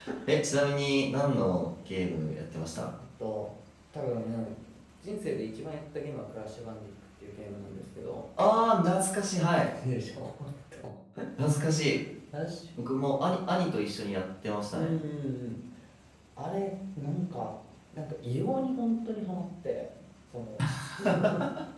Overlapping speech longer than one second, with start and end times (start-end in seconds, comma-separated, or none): none